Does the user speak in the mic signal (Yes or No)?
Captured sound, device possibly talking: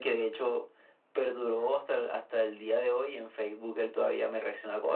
No